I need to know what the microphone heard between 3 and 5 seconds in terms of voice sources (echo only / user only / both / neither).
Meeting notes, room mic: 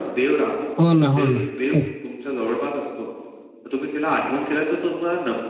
echo only